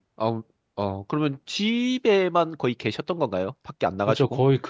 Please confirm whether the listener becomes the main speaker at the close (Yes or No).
Yes